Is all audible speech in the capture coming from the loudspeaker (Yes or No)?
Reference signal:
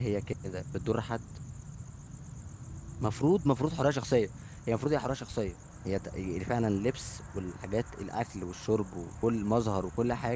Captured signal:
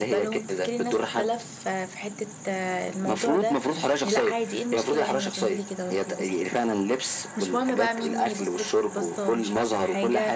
No